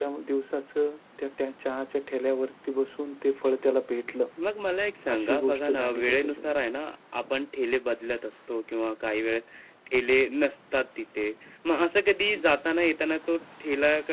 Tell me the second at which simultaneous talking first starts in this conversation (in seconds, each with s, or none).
5.1 s